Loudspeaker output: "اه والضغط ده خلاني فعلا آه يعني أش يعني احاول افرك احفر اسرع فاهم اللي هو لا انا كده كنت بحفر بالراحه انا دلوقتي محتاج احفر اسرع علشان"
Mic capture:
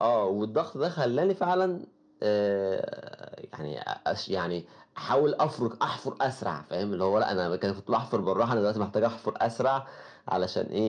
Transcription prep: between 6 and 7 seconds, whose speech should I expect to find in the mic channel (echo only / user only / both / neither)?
echo only